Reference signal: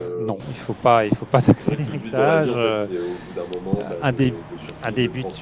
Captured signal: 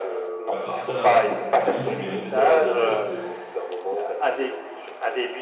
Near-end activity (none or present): present